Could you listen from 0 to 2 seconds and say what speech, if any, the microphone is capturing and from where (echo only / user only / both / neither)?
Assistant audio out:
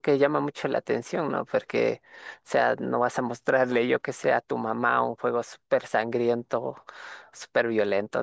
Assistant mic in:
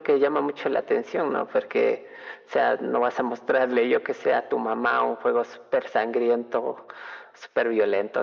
echo only